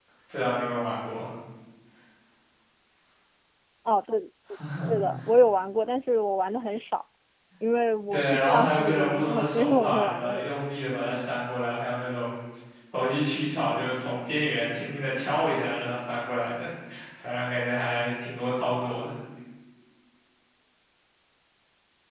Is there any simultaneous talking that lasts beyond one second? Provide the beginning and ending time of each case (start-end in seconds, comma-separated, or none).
8.1-10.5